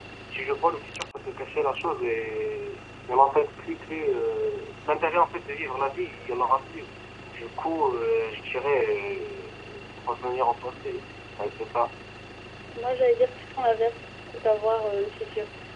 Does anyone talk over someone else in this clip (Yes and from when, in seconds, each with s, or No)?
No